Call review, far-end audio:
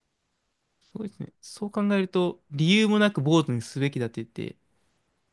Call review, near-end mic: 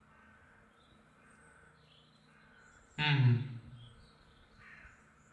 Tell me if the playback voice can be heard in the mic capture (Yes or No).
No